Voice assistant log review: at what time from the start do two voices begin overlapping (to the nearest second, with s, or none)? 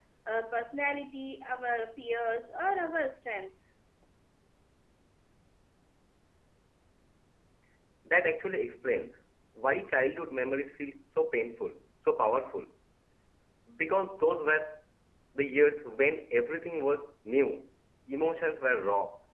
none